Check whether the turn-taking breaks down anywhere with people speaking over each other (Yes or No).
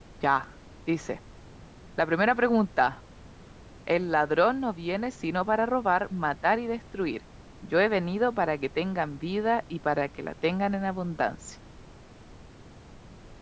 No